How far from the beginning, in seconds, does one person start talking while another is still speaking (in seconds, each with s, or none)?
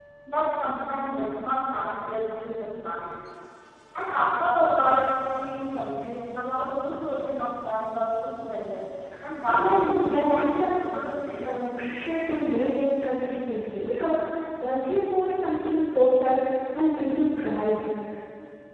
9.5 s